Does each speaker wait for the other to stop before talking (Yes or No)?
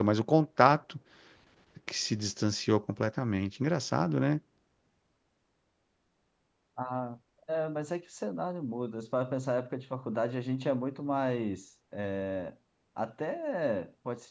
Yes